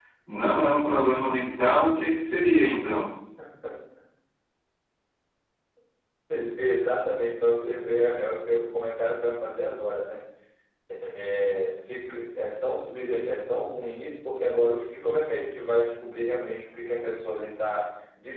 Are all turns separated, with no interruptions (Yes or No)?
Yes